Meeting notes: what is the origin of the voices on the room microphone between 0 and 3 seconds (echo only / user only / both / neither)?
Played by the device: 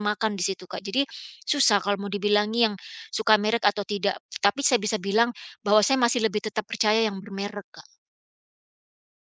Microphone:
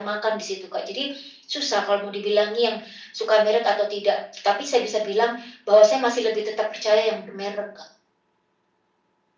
echo only